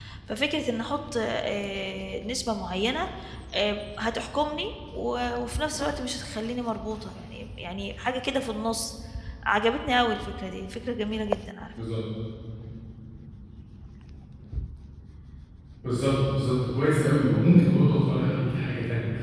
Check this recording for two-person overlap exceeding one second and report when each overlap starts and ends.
none

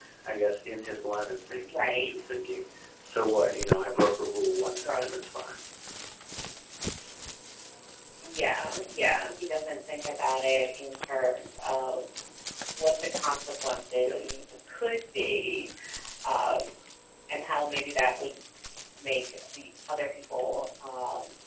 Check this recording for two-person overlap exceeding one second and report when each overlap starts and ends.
none

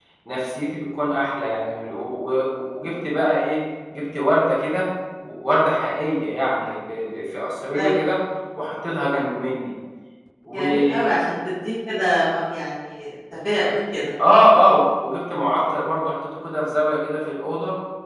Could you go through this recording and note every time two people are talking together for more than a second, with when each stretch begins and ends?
none

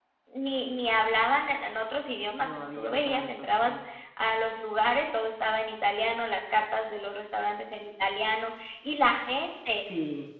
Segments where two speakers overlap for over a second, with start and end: 2.4-3.8

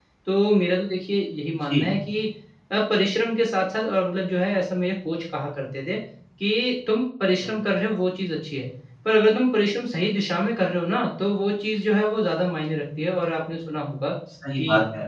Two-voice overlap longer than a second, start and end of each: none

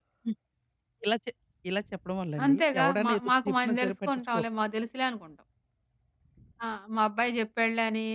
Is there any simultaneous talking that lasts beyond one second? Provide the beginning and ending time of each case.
2.5-4.5

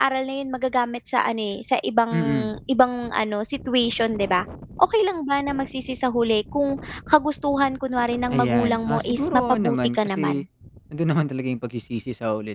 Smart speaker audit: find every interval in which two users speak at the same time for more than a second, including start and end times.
8.3-10.4

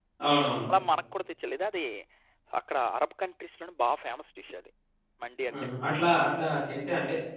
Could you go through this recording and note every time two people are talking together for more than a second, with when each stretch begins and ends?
none

